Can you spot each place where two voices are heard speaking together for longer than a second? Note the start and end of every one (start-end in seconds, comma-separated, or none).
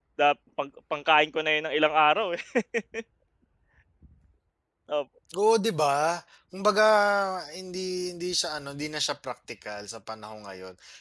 none